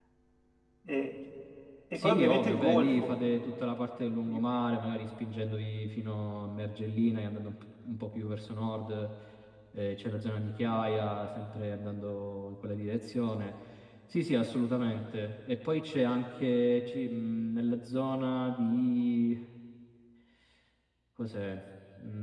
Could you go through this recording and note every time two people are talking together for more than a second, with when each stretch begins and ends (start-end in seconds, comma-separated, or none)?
1.9-3.2